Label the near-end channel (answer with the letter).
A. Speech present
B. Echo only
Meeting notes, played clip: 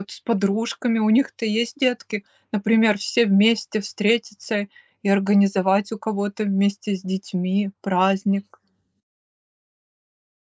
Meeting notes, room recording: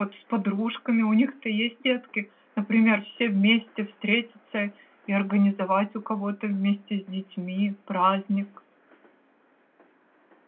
B